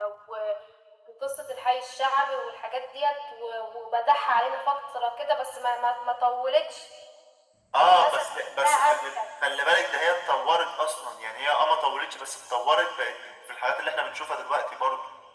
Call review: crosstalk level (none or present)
present